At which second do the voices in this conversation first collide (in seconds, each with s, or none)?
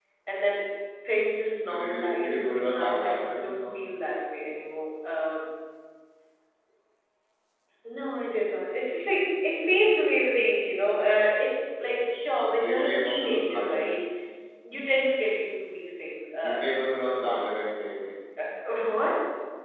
1.7 s